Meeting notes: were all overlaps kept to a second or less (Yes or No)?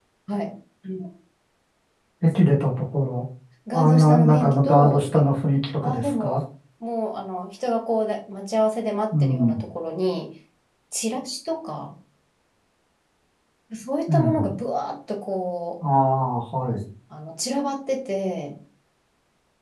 No